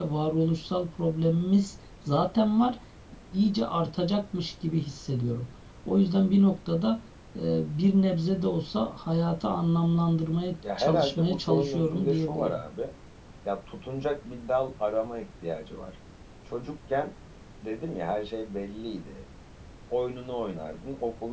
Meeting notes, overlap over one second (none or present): present